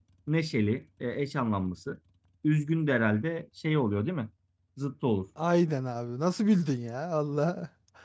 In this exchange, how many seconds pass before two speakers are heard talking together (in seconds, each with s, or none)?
none